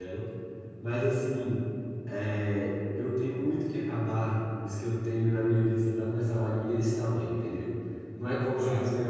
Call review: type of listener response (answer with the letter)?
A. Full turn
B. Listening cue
B